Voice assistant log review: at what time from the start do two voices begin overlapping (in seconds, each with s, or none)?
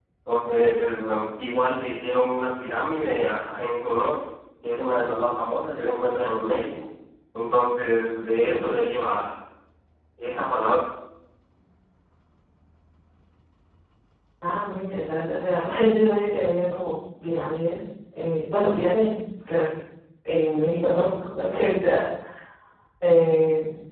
none